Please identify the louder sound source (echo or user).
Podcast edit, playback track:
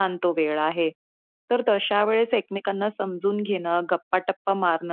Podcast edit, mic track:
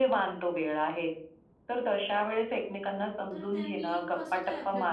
echo